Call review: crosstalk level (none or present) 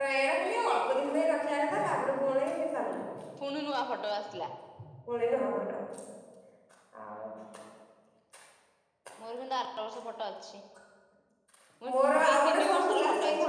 present